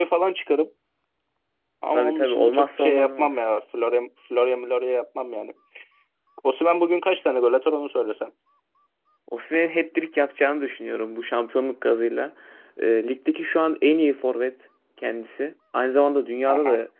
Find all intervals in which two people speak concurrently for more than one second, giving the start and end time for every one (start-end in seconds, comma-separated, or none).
1.9-3.4